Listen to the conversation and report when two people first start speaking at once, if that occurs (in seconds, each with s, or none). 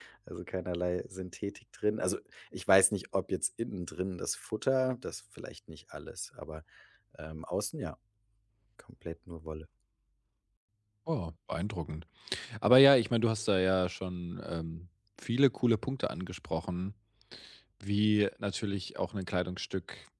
none